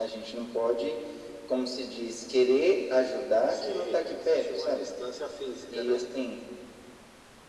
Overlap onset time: 3.5 s

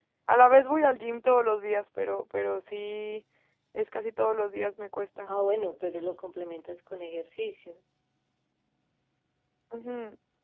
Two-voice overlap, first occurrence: none

